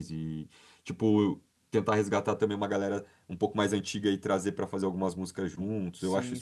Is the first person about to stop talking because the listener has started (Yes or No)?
Yes